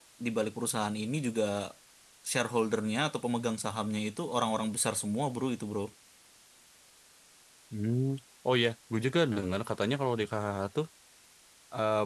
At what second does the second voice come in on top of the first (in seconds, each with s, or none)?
none